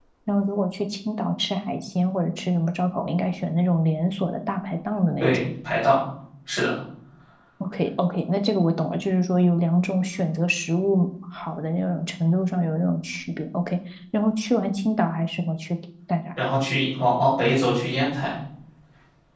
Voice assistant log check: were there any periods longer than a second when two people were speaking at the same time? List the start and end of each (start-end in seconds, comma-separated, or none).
none